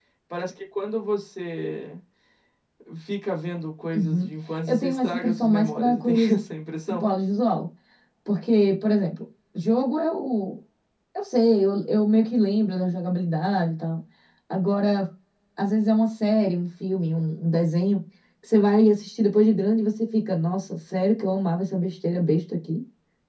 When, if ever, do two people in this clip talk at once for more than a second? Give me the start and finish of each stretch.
4.7-6.4

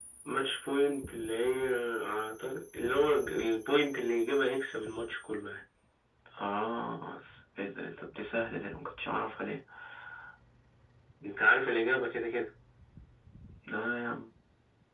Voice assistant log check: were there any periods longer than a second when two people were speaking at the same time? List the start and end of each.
none

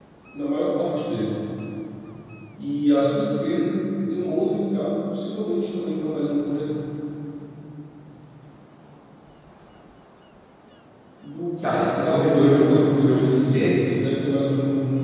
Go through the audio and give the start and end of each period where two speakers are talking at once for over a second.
11.6-13.9

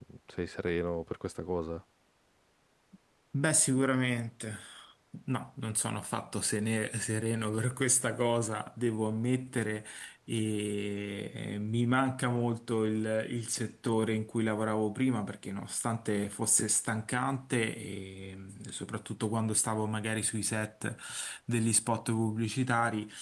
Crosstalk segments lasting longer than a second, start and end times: none

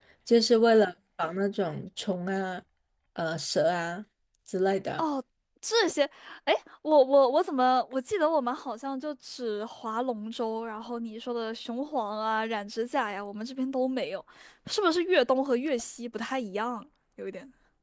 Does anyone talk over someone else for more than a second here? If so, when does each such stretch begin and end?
none

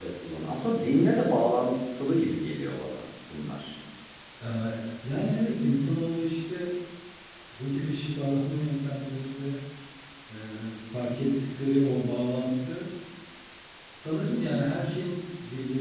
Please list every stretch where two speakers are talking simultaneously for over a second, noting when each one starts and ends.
none

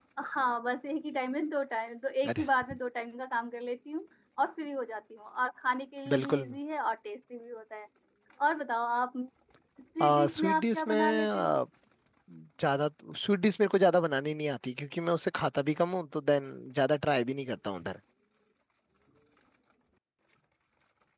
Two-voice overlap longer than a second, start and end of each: 10.0-11.6

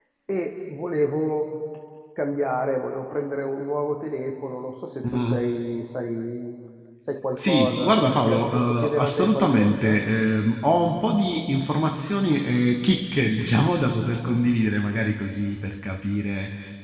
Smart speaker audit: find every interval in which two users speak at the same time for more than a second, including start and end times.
7.4-10.0

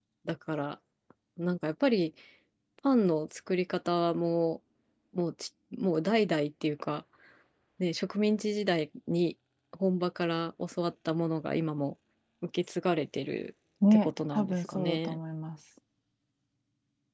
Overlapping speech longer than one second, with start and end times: 13.9-15.2

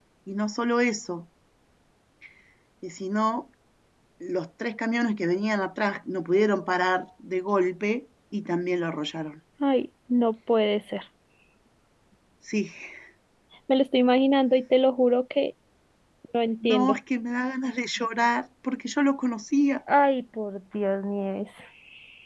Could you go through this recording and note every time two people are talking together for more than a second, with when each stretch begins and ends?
none

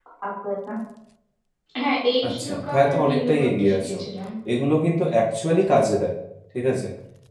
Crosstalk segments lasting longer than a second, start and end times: 2.2-4.0

